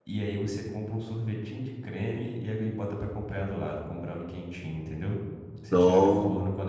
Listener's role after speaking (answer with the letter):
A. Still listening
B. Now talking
A